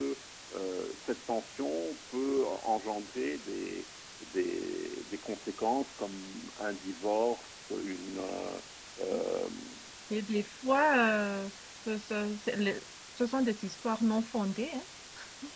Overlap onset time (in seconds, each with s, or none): none